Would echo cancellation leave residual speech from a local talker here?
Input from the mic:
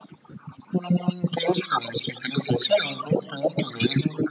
No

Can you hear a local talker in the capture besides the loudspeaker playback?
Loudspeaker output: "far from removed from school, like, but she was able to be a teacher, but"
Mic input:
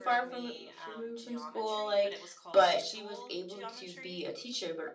Yes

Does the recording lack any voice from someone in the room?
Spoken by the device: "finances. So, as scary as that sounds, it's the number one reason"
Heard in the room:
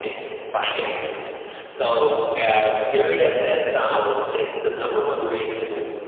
Yes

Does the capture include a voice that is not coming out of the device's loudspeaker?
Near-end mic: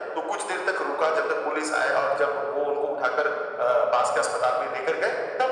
No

